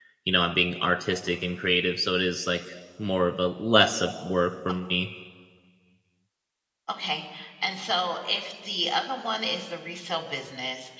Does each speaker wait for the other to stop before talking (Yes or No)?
Yes